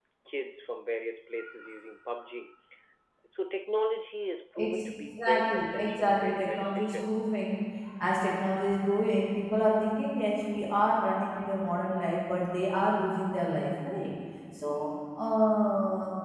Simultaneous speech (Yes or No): Yes